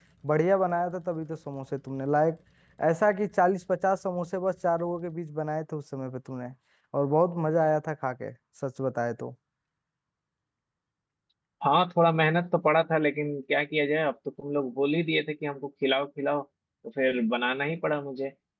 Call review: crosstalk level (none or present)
none